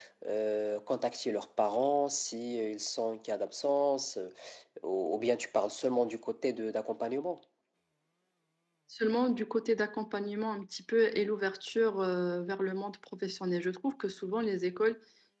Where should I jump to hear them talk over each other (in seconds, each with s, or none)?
none